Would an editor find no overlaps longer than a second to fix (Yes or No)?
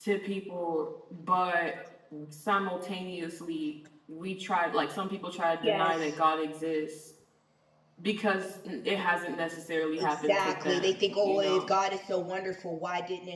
No